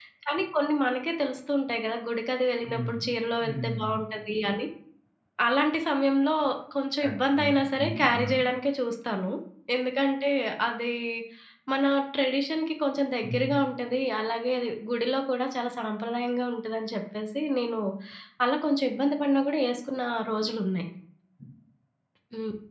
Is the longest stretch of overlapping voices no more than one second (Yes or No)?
No